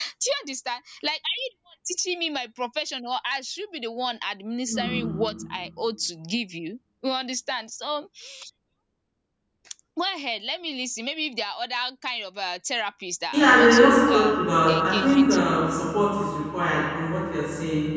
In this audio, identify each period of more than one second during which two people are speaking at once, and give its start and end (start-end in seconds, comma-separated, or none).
13.3-15.5